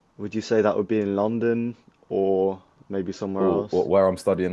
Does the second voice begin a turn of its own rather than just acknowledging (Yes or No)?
Yes